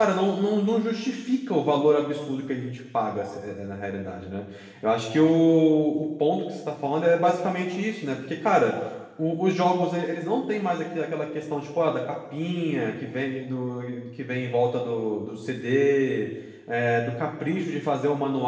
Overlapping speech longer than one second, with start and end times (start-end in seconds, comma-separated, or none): none